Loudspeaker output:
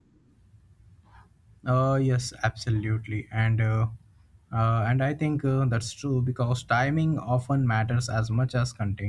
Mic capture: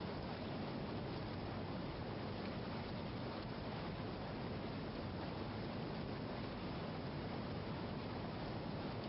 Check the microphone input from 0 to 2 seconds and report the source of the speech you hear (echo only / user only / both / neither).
neither